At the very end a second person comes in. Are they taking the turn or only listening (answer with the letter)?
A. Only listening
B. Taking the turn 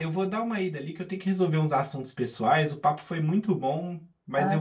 A